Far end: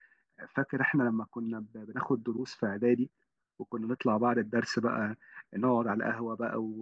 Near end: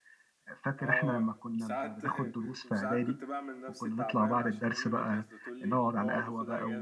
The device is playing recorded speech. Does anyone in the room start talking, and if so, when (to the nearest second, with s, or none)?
1 s